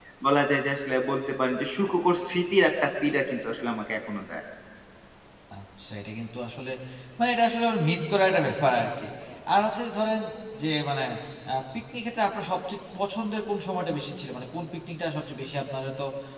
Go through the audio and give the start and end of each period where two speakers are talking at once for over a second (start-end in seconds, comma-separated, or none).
none